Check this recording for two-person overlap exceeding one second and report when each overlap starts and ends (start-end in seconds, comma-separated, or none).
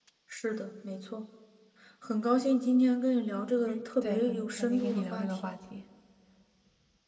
3.7-5.6